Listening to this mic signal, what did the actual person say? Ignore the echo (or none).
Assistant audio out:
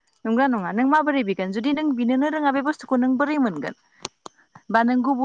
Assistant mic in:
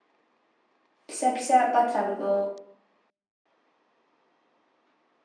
फिसा फिसा बाथ्राफोरखौ